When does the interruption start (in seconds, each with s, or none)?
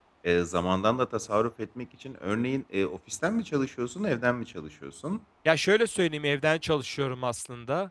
none